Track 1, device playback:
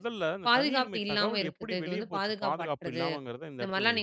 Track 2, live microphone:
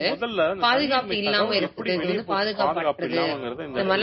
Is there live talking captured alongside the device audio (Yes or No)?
Yes